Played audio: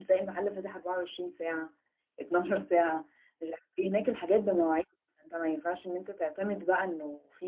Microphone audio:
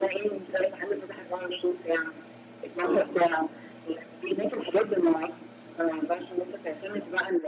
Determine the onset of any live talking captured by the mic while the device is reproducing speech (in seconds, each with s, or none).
2.8 s